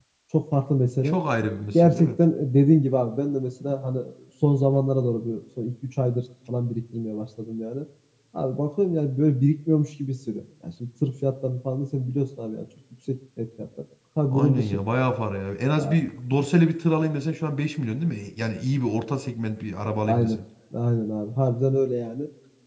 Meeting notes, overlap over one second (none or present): none